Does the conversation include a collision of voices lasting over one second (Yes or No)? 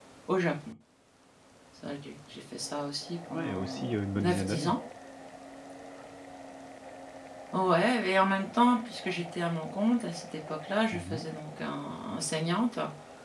Yes